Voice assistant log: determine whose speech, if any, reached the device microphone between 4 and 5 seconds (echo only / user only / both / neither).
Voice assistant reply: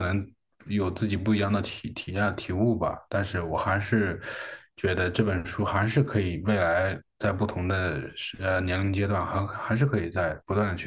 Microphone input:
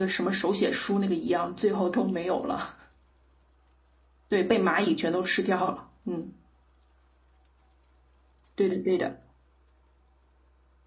user only